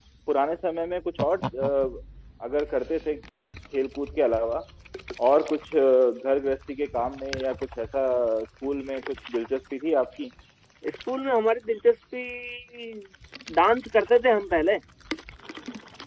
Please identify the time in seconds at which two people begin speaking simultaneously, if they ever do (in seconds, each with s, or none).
none